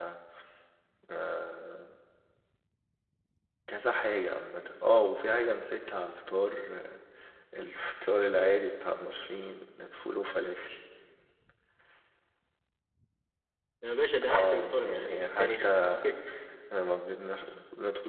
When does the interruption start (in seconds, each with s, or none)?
14.2 s